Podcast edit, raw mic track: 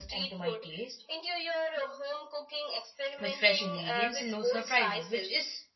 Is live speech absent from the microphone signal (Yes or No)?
No